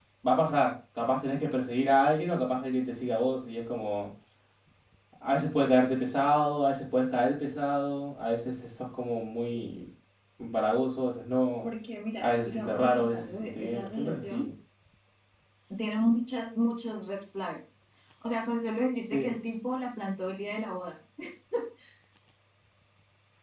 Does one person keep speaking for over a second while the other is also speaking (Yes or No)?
Yes